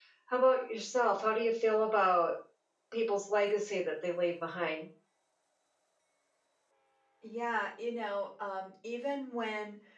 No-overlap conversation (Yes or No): Yes